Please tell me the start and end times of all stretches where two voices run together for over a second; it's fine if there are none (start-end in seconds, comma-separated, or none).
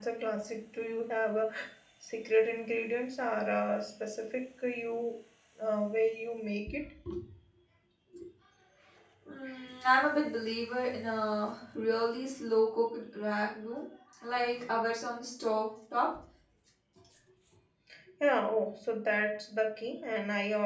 none